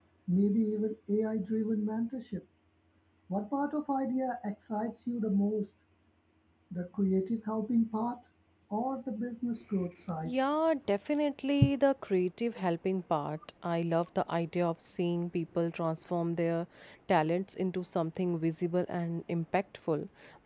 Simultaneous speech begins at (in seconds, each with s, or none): none